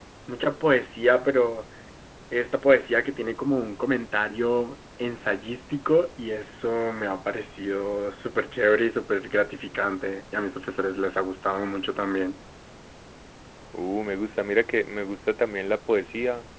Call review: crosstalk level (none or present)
none